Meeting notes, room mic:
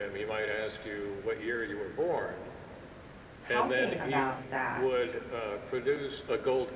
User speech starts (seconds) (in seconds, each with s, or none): 3.5 s